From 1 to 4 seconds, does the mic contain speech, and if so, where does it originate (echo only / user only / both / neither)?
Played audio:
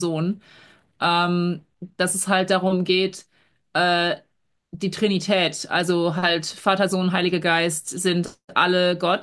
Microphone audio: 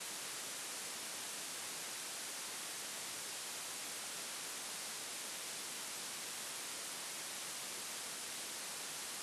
neither